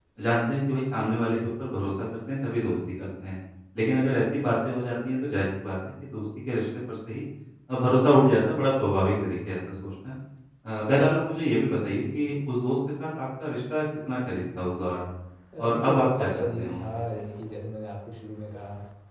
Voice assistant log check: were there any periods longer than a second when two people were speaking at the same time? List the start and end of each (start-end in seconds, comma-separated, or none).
15.6-16.8